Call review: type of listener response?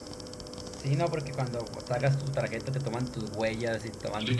taking over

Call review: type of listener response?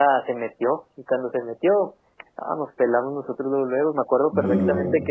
listening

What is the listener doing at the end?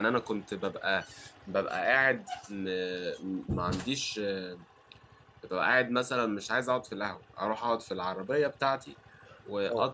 listening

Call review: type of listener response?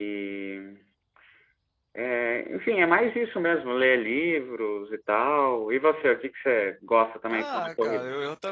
taking over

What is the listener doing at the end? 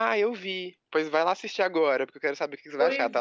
taking over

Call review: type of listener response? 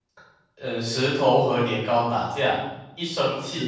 listening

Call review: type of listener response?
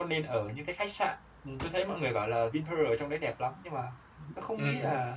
listening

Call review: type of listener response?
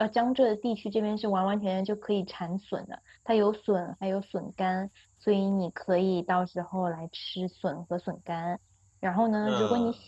listening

